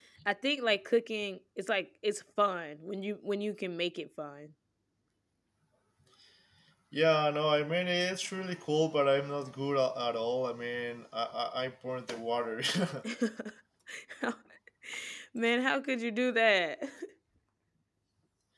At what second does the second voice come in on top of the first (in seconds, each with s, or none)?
none